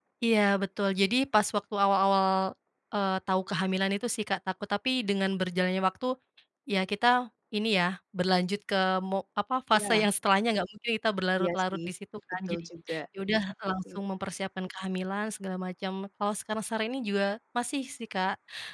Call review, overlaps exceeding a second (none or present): none